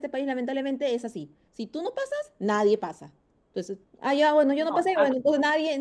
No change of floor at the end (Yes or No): Yes